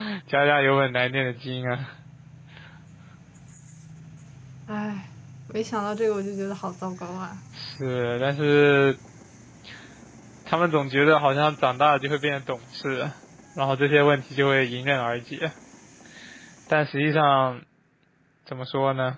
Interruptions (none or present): none